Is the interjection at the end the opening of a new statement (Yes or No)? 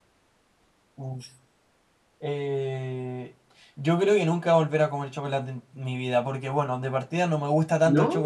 No